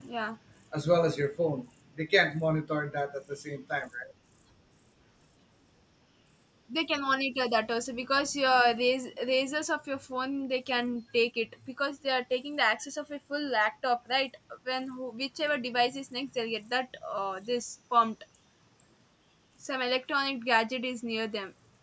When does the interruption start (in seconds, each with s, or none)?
none